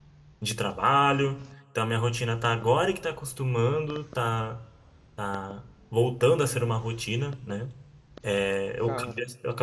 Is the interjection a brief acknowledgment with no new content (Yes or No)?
Yes